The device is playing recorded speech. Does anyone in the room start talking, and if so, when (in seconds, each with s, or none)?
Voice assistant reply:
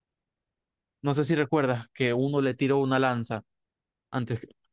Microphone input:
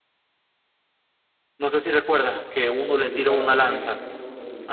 2.7 s